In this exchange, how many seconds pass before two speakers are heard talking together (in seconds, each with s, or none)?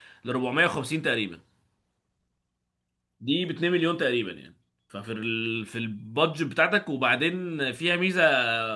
none